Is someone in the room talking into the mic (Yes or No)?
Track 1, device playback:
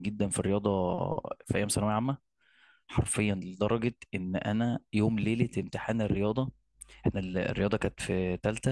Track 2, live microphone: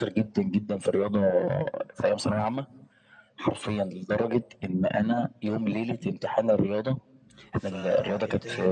Yes